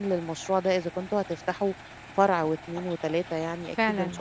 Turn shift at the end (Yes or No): Yes